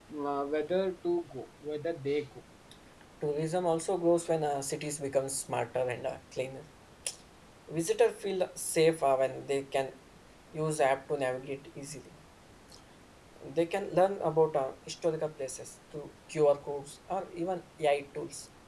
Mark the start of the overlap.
none

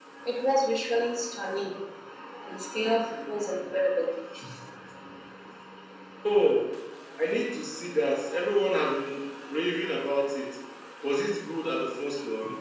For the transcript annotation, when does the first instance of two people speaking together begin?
none

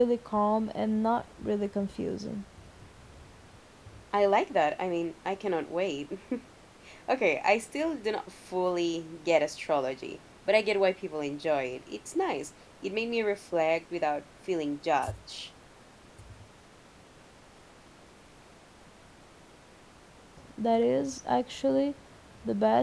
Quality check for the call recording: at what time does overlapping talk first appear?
none

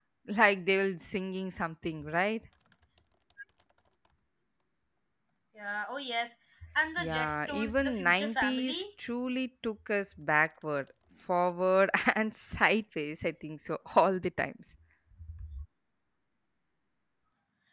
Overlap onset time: 7 s

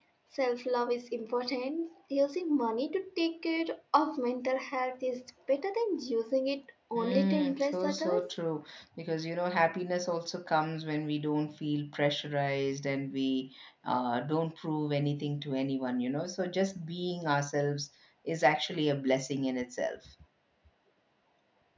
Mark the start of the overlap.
7 s

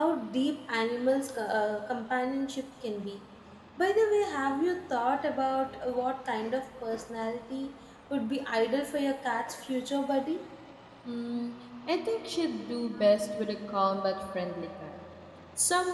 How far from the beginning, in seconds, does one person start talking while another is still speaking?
none

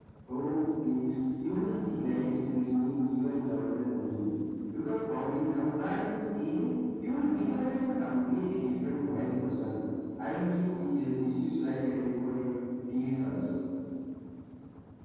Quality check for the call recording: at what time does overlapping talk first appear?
none

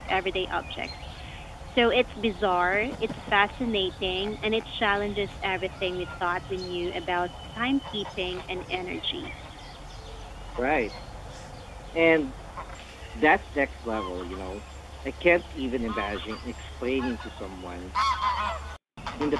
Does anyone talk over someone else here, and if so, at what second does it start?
none

